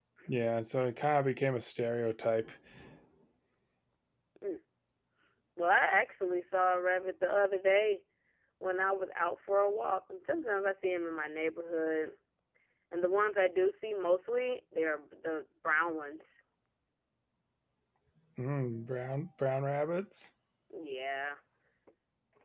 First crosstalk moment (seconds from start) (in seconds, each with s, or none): none